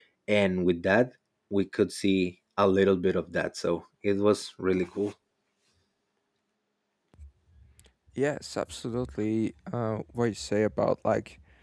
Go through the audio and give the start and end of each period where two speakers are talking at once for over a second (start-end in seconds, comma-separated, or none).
none